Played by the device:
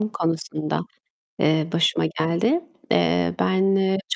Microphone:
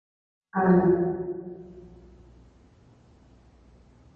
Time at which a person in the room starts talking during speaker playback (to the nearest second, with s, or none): 1 s